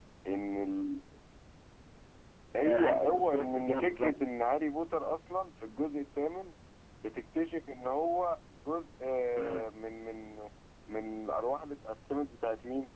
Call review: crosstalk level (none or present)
present